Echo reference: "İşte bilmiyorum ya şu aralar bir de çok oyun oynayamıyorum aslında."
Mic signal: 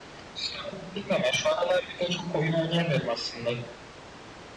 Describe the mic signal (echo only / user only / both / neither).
echo only